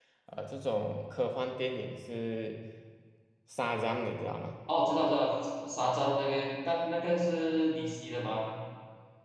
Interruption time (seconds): none

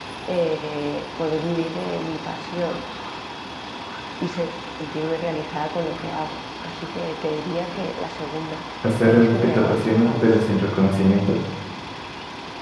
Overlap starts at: 8.8 s

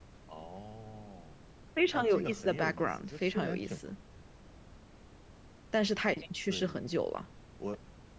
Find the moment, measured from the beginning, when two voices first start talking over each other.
1.9 s

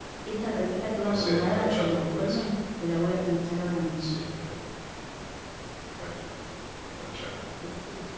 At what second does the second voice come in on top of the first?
1.0 s

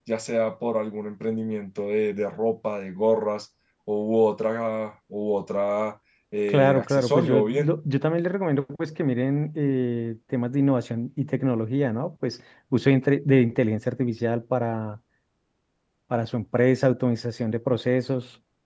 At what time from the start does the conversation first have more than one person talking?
6.5 s

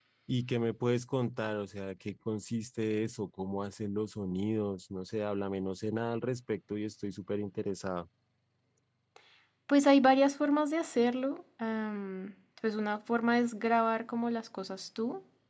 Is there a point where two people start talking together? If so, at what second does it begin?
none

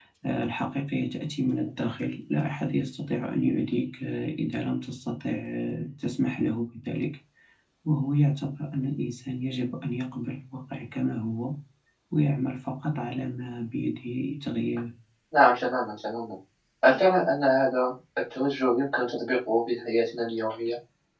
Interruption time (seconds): none

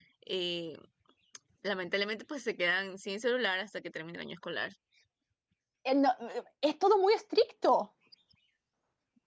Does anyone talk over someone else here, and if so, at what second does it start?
none

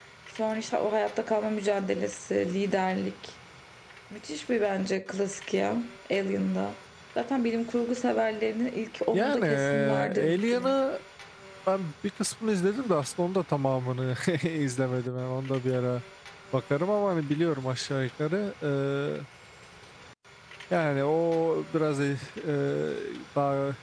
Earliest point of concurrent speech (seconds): 9.1 s

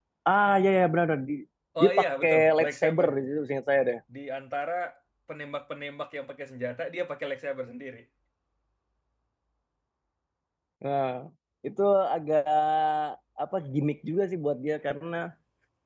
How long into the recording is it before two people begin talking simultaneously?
1.8 s

